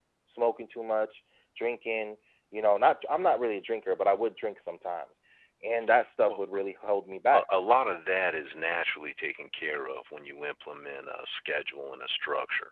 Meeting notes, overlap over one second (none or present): none